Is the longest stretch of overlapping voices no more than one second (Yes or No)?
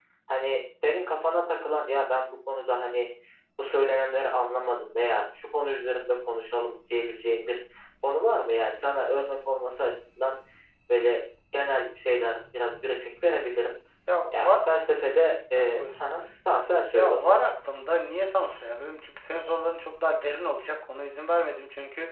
Yes